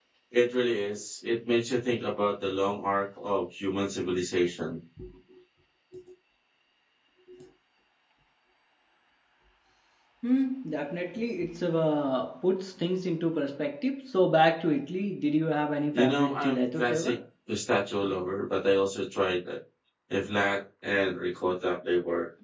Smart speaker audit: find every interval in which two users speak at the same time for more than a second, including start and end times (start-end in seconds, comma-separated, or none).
15.9-17.2